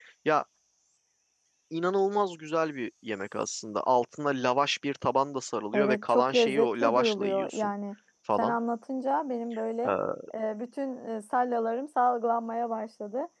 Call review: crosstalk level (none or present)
present